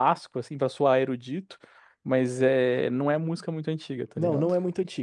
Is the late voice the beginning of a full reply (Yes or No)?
Yes